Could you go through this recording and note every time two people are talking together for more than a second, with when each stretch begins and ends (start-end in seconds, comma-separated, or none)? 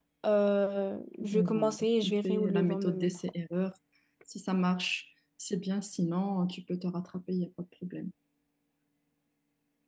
1.2-3.2